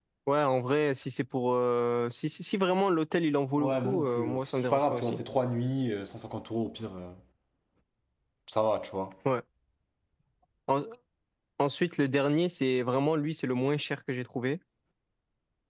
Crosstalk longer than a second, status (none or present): present